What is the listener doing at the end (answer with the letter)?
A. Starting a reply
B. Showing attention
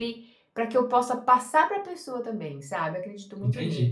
A